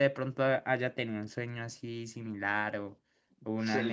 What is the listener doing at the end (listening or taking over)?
taking over